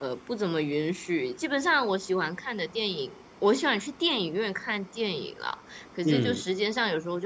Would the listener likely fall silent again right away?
Yes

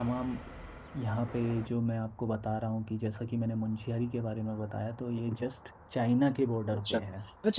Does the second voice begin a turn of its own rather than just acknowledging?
Yes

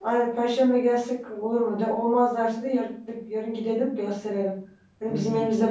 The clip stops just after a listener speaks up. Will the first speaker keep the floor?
Yes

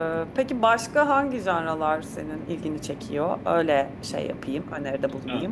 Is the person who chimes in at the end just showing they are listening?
No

